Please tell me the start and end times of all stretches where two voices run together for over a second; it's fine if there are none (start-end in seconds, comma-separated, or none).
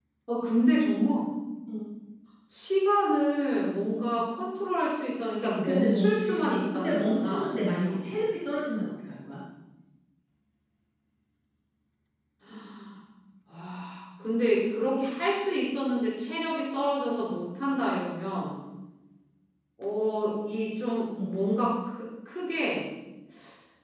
5.6-8.2